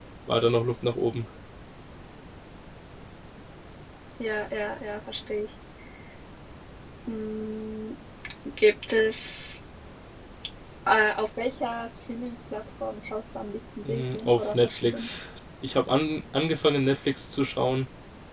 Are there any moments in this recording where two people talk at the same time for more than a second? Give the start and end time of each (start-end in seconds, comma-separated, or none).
13.8-15.1